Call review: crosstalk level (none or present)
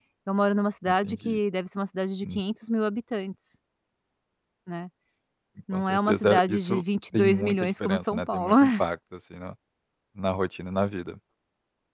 present